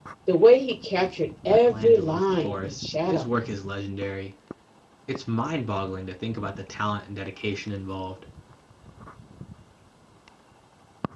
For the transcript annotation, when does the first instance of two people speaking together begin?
1.5 s

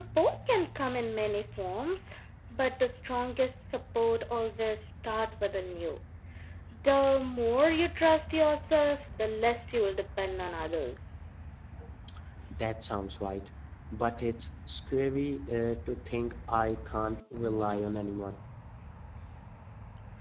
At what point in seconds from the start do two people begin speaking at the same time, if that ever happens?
none

